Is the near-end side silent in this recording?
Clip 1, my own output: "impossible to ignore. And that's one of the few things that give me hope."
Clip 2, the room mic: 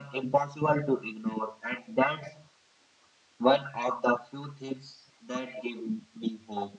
Yes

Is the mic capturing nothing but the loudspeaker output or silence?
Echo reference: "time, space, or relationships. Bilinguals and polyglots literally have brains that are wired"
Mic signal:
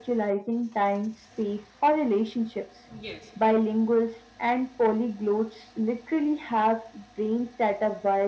No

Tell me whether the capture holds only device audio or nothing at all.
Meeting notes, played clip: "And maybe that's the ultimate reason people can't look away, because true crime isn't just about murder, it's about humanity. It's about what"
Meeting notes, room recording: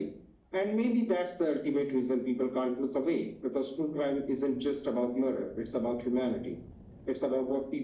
Yes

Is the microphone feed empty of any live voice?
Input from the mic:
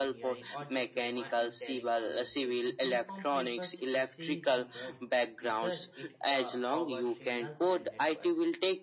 No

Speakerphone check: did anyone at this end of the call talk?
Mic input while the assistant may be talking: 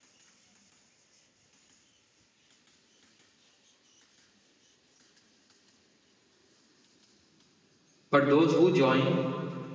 Yes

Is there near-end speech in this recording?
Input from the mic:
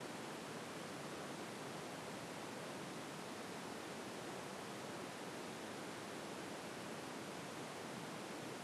No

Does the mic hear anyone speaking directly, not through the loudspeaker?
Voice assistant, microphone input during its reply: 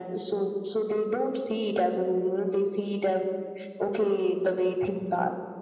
No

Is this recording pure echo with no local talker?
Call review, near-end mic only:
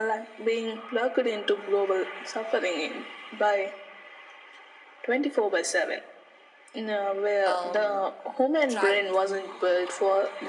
No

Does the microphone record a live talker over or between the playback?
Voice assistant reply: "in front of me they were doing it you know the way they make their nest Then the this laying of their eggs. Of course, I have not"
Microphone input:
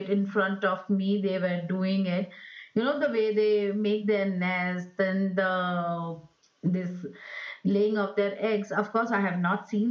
No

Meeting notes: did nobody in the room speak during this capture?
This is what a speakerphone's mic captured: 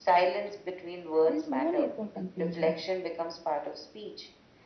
No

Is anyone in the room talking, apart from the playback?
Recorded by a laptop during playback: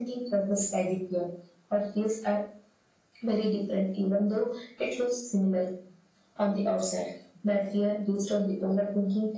No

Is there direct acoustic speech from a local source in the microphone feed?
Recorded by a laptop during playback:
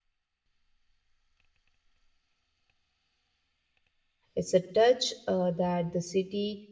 Yes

